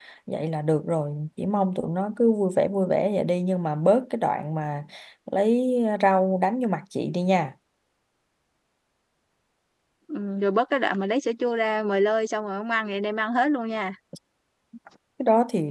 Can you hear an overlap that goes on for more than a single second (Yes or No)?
No